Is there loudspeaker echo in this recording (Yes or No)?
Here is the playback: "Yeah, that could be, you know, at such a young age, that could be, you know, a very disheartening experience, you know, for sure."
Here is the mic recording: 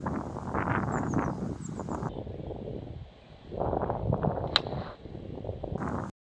No